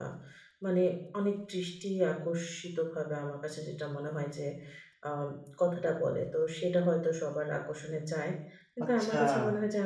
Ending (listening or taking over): listening